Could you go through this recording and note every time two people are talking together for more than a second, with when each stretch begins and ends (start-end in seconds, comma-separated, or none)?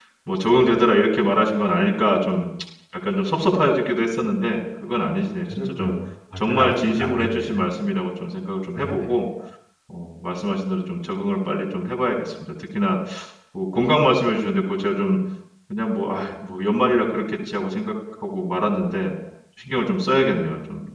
6.4-7.7